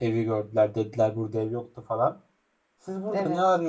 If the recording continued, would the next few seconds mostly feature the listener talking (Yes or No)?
No